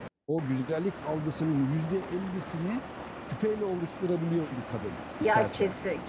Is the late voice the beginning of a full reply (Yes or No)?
Yes